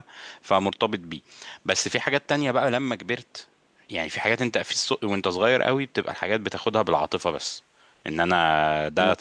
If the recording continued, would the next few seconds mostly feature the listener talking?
No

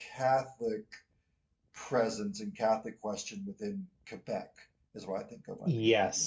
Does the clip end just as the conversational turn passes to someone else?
Yes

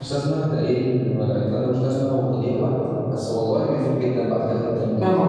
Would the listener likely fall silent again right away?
No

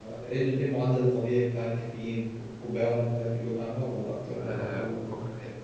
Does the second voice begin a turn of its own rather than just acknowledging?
Yes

